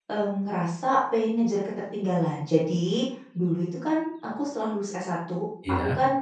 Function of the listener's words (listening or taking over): listening